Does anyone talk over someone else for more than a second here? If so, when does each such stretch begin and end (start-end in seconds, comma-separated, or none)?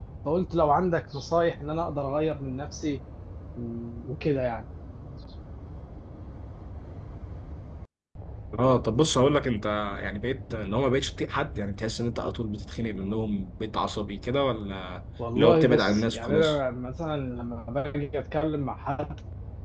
15.3-16.6